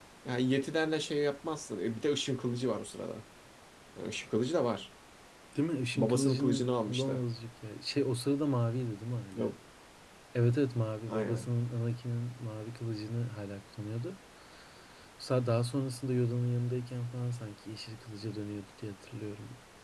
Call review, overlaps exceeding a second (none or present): present